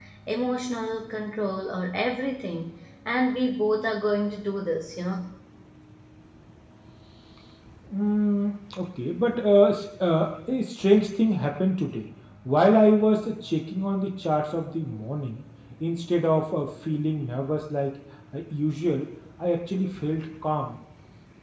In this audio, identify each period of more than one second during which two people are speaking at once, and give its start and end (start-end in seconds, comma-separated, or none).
none